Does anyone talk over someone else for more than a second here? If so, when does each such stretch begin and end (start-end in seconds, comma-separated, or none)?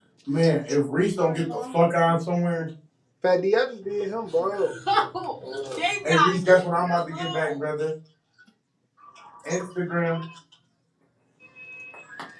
6.0-7.6